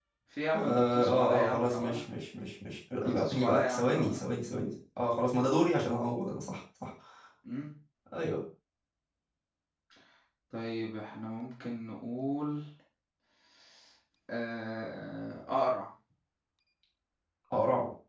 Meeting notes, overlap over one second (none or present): present